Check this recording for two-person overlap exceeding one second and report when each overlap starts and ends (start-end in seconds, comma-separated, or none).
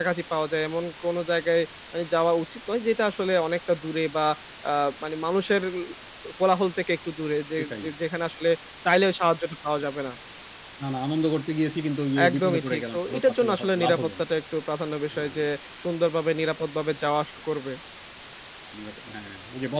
12.3-14.2